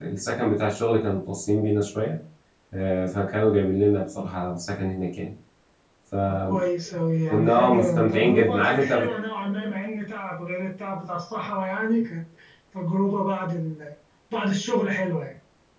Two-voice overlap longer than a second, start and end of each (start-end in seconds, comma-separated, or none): 7.5-8.9